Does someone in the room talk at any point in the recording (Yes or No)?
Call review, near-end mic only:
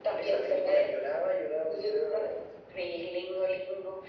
No